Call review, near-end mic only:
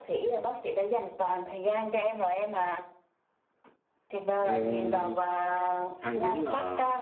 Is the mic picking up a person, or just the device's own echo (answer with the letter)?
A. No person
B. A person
B